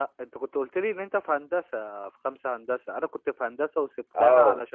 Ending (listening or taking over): listening